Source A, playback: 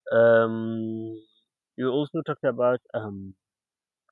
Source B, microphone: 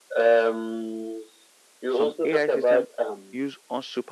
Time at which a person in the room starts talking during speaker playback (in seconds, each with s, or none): 1.9 s